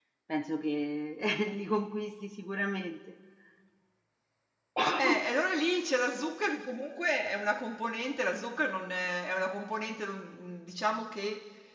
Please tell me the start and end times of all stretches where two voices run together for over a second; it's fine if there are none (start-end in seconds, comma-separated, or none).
none